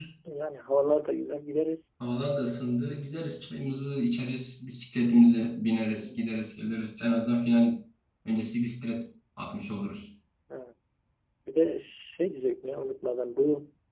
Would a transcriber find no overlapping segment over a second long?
Yes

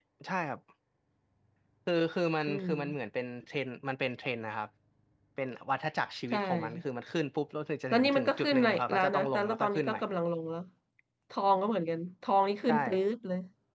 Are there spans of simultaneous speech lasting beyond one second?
Yes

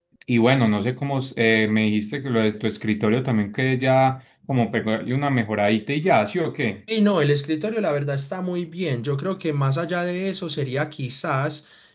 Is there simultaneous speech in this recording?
No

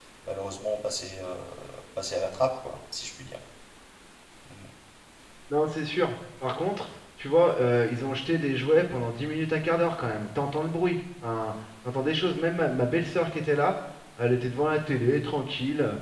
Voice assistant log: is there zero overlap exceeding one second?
Yes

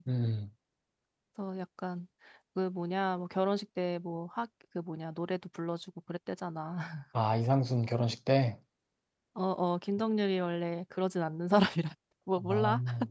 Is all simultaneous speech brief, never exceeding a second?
Yes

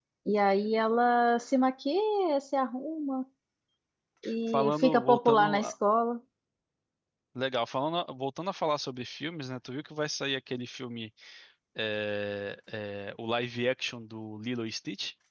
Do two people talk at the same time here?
Yes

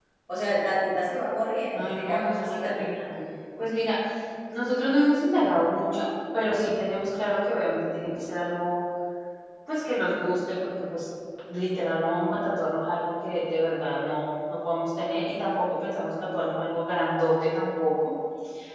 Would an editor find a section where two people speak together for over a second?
Yes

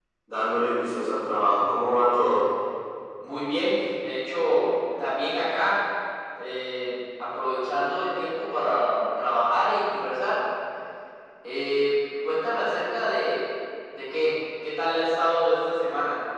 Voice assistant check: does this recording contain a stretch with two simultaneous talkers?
No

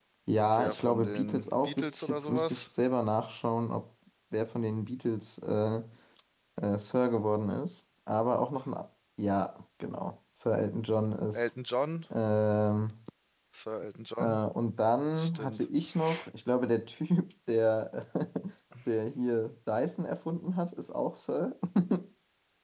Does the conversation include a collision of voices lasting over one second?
Yes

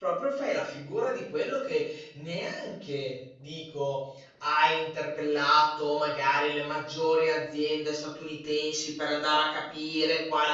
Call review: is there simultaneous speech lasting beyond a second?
No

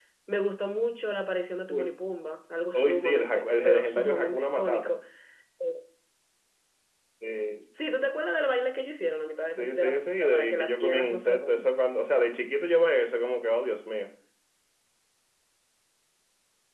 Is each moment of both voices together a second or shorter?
No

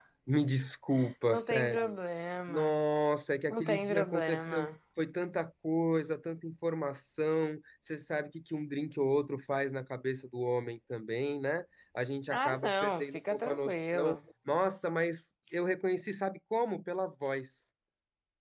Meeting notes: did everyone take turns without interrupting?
No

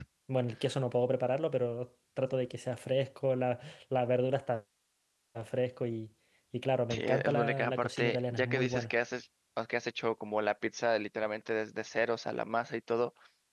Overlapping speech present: Yes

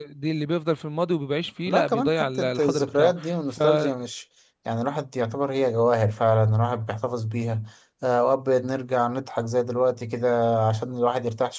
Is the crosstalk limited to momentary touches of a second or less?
No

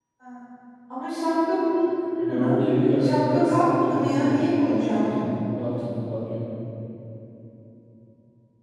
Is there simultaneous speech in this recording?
Yes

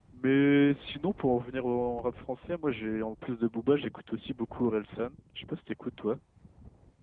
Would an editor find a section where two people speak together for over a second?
No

